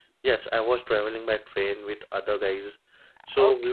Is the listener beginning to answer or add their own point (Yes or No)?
Yes